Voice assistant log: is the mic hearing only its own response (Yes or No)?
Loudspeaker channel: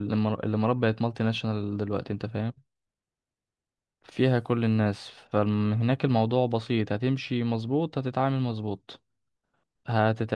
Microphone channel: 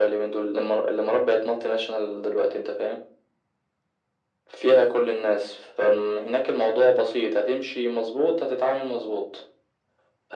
Yes